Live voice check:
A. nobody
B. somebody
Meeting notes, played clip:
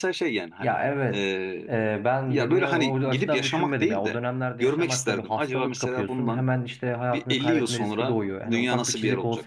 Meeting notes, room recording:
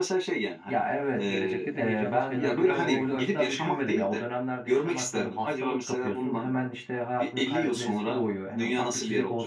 B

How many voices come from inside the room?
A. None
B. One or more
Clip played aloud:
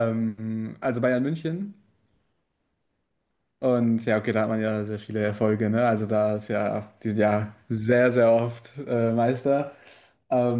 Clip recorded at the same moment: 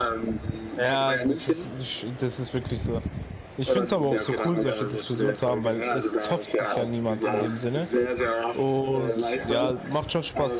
B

